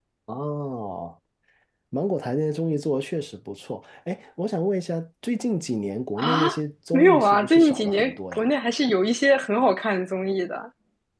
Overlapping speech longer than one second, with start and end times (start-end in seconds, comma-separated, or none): 6.9-8.5